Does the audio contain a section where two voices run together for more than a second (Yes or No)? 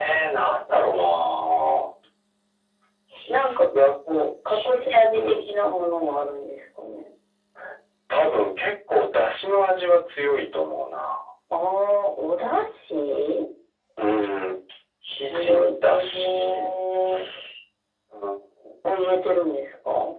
Yes